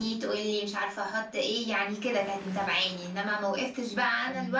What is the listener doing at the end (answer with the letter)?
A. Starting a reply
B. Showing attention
B